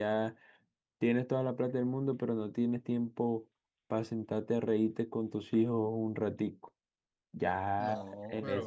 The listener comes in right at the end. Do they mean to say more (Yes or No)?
No